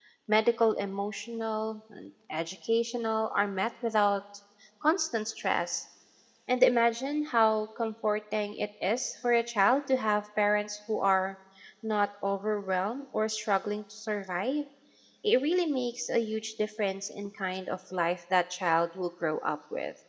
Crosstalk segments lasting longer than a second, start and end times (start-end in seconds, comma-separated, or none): none